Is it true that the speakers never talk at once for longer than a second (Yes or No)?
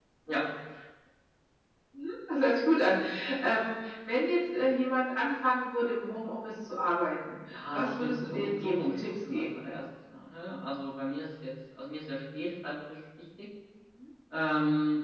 No